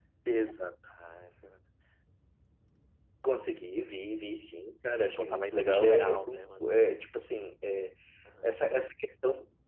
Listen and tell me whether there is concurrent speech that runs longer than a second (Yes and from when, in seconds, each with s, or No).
Yes, from 4.9 s